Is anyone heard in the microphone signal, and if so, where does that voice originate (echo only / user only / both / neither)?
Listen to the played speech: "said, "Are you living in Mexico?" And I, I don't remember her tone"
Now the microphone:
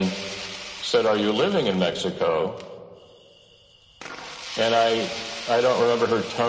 echo only